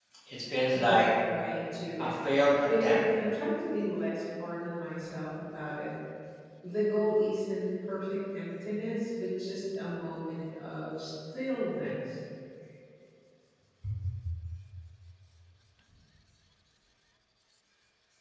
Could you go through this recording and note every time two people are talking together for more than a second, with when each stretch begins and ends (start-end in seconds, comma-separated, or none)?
none